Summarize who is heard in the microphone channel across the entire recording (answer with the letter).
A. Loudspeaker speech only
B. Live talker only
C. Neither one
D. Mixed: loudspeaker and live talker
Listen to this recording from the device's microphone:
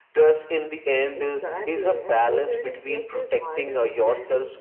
D